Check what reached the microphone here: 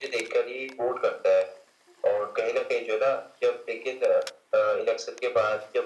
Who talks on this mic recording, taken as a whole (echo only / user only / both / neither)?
echo only